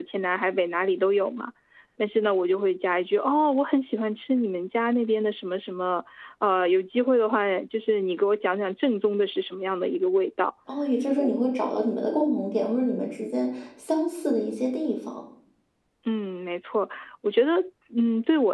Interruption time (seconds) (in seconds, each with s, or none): none